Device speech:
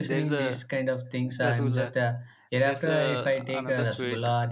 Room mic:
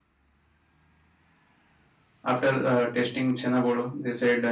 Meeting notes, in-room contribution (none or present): present